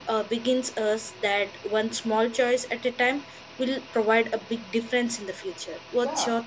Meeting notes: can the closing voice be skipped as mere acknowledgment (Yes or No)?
No